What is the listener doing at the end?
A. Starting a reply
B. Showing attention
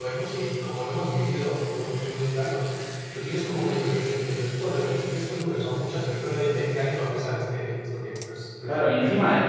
A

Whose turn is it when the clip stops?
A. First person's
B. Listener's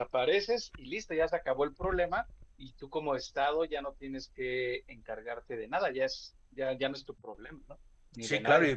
B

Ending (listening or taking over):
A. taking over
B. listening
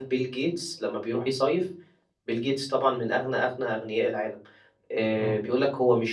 B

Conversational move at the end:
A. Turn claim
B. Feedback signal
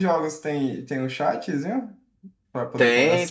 A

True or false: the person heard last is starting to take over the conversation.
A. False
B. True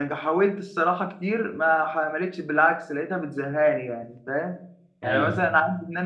A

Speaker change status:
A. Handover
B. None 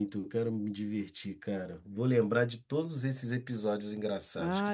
A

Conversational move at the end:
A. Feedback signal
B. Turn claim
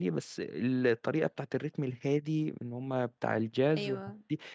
A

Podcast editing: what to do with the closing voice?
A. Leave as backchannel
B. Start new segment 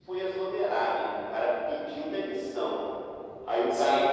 A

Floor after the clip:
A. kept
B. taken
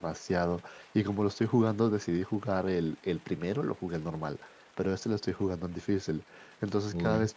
A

